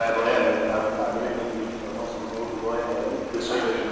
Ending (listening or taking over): listening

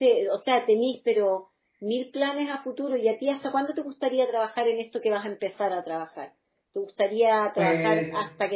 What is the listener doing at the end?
listening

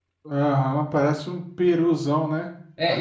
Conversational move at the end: taking over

